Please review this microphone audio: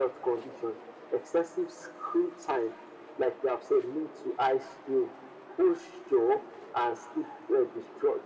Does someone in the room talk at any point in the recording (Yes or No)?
No